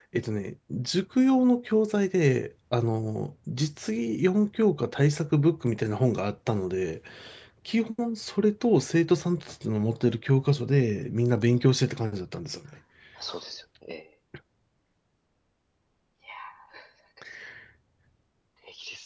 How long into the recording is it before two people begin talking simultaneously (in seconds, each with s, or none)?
none